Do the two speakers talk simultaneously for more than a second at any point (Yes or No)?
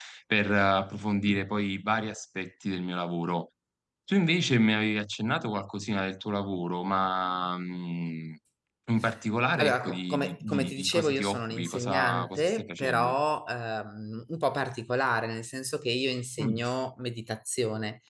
Yes